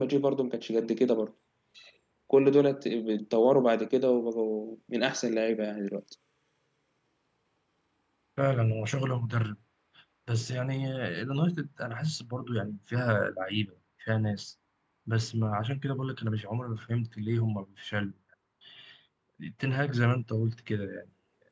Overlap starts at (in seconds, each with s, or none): none